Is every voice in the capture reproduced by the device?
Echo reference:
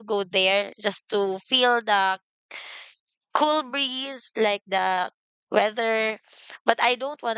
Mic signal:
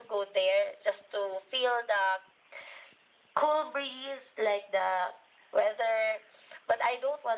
Yes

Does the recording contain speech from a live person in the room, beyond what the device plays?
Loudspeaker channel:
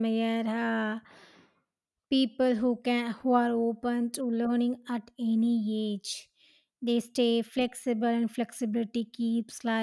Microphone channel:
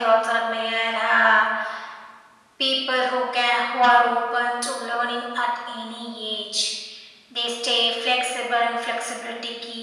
No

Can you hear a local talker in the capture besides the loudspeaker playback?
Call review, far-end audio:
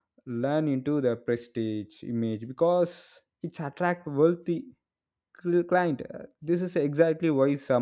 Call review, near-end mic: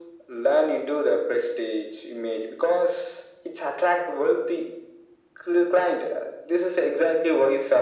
No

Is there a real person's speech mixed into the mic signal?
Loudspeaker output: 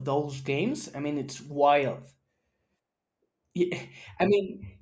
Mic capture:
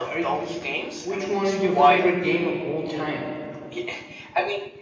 Yes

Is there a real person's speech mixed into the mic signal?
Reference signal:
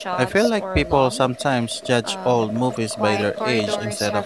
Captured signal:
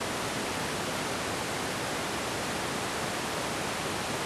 No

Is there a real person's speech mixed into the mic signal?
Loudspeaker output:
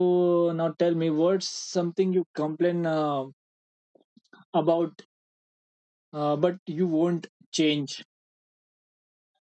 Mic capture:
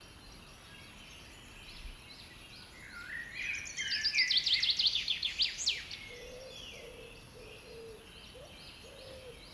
No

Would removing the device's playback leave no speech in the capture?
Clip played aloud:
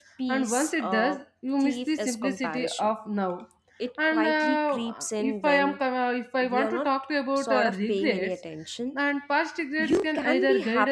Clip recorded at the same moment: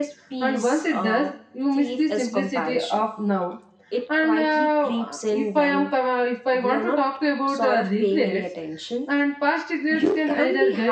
Yes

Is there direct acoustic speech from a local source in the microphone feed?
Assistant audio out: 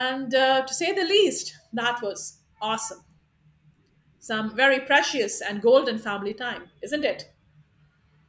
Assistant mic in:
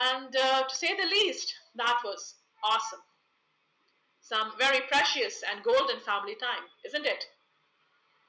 No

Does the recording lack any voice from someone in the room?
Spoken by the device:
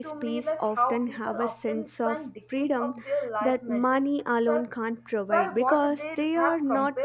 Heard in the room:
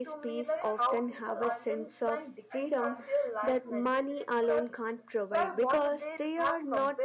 No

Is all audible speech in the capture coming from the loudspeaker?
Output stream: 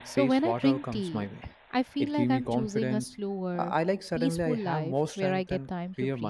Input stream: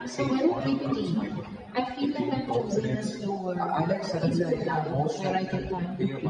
Yes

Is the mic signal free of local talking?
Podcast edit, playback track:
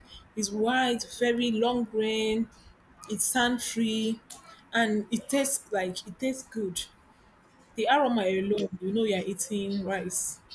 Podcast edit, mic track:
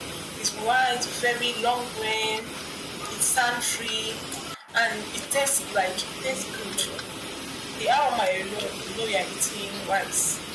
Yes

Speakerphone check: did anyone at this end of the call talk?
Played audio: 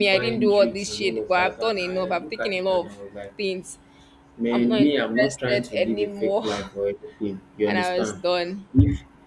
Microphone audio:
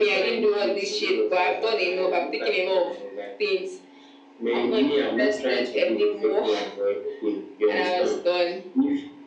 No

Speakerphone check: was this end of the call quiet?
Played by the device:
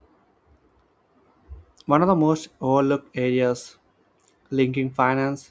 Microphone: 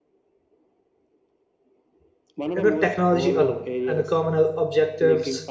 No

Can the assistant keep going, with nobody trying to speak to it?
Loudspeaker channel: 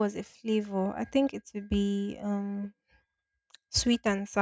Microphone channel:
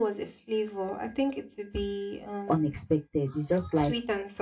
No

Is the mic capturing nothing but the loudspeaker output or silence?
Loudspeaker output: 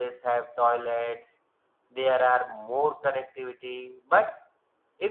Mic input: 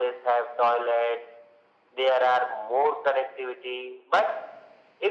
Yes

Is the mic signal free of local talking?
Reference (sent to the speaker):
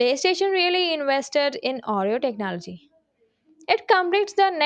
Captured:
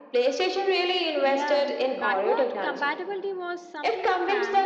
No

